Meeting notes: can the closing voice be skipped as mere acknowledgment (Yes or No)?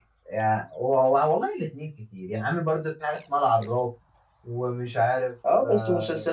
No